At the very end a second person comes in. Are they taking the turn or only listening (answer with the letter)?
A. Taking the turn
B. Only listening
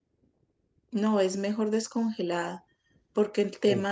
B